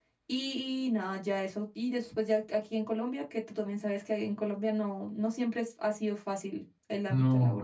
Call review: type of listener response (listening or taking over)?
taking over